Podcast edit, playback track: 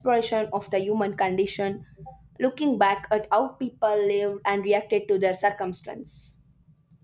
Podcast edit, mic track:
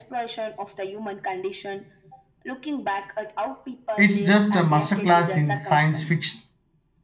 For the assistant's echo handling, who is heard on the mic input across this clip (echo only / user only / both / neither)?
both